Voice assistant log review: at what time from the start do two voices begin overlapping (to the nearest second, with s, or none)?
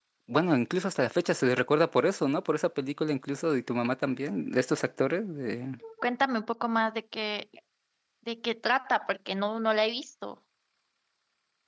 none